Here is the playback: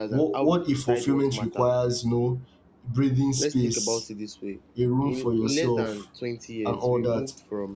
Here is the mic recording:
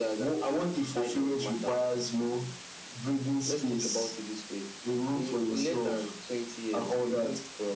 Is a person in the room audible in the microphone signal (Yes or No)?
No